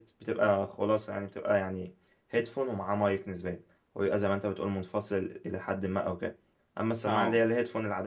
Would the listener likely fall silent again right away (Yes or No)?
Yes